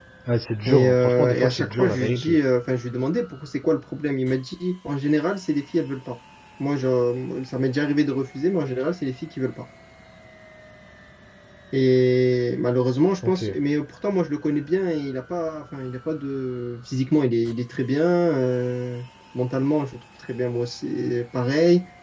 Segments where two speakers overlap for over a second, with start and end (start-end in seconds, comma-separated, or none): 0.7-2.4